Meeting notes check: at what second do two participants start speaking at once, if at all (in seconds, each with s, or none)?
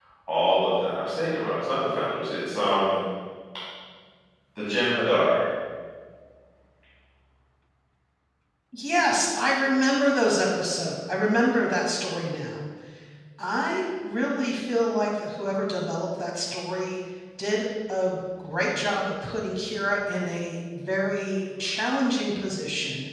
none